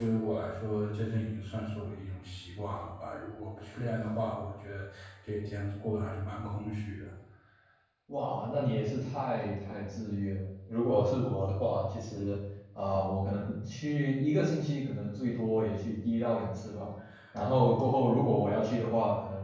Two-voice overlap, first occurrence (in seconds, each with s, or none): none